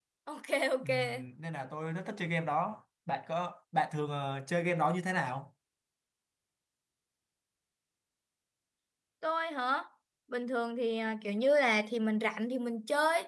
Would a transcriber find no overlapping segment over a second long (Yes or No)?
Yes